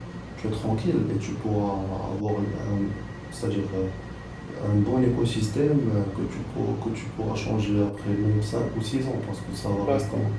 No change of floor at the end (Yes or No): No